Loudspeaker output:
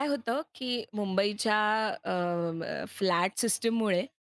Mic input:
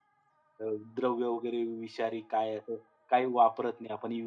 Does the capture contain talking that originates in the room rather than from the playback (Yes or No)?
Yes